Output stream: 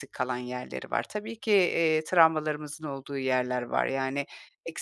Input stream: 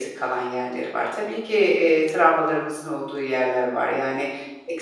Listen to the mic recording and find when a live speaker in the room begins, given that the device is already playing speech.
none

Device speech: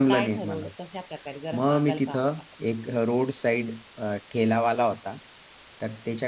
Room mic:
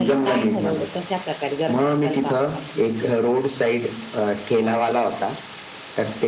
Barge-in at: none

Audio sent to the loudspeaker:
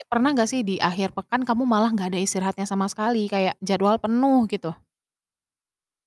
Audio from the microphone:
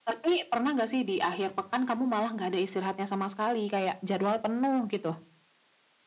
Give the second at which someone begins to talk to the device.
none

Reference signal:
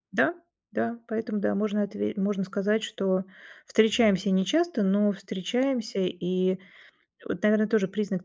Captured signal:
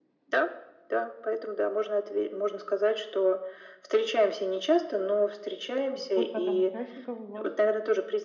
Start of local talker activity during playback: 6 s

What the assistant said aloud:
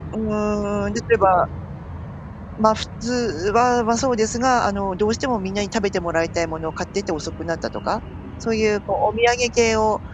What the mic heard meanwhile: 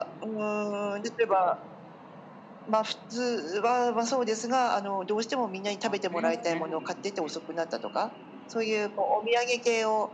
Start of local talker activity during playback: 6 s

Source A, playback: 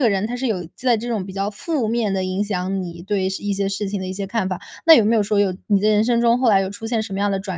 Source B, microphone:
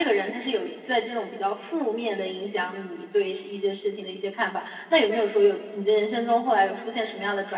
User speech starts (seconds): none

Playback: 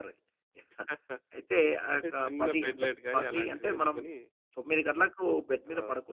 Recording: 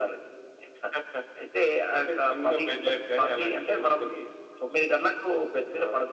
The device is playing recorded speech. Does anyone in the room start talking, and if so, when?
none

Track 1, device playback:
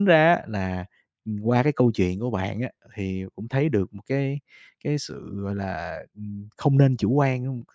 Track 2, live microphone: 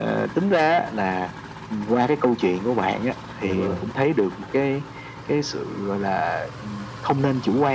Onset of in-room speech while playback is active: 3 s

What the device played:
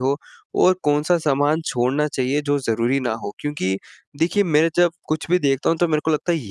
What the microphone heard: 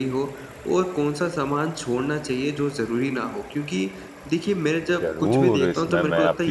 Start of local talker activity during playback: 5 s

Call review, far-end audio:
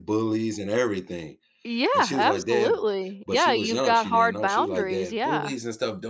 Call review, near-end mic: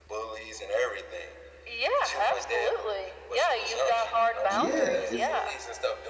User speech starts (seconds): 4 s

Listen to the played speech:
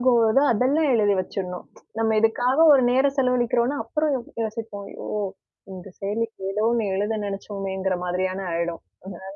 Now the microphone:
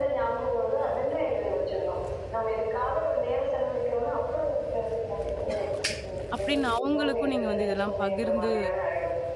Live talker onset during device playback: 6 s

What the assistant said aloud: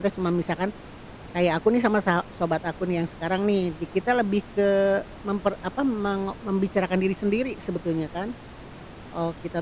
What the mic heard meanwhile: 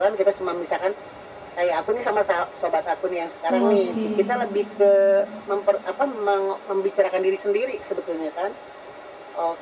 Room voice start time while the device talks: 3 s

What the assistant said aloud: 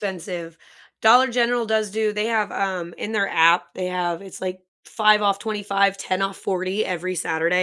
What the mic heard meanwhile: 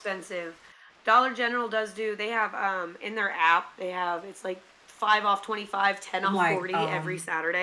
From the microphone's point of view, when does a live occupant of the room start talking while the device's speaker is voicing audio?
6 s

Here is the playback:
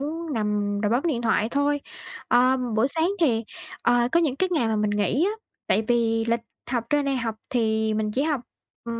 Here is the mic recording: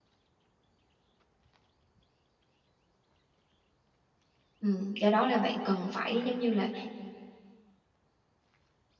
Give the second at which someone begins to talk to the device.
5 s

